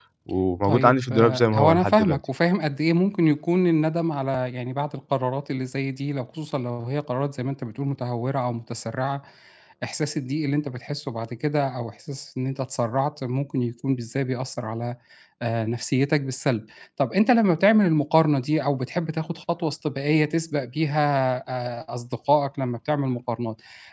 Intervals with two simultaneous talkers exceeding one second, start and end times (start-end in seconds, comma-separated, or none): 0.6-2.2